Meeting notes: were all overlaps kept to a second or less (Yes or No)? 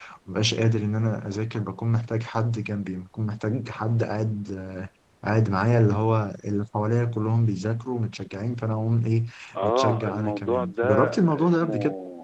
No